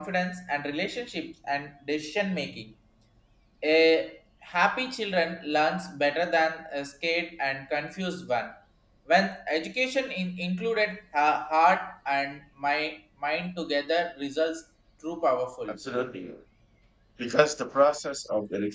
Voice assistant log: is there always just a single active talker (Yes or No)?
Yes